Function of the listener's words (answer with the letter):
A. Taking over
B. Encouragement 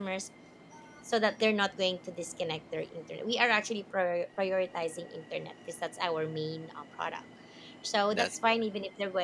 B